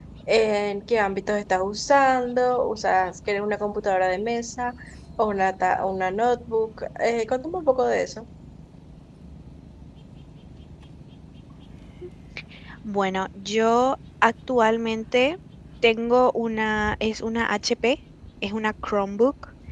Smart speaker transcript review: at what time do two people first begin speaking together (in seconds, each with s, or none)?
none